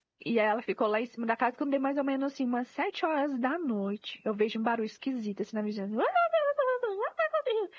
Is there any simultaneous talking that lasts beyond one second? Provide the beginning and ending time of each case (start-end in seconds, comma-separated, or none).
none